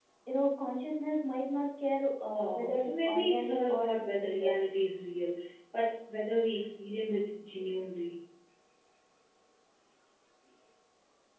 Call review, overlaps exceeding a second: present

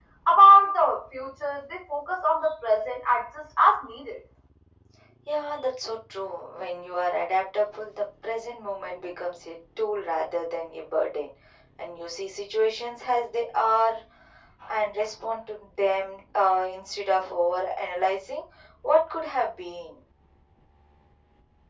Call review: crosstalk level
none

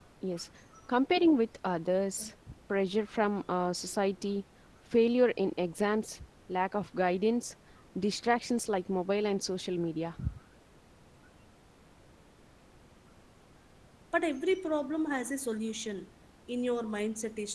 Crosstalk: none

